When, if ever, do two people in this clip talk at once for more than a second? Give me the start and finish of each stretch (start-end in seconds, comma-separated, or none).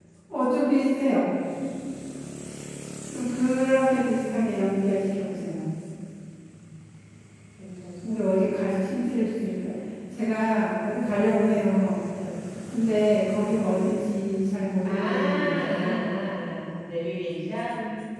14.8-16.0